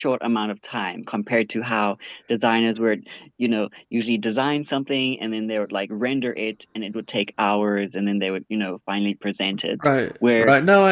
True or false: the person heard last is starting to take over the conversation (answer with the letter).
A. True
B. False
A